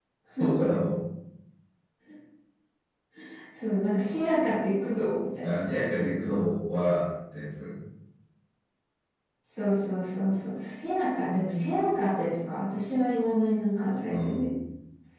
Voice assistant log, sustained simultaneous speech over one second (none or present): none